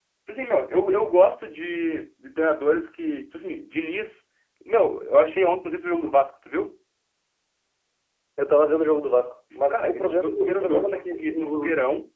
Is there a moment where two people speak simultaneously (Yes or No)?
Yes